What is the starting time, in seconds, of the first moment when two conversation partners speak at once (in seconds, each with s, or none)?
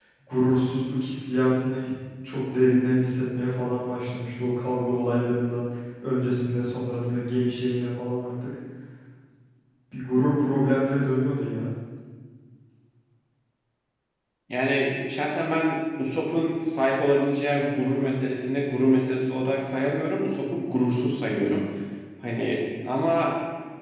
none